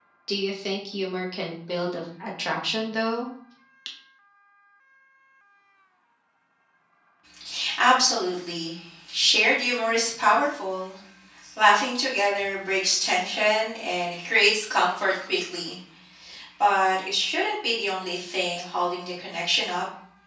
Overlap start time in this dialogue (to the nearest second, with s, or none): none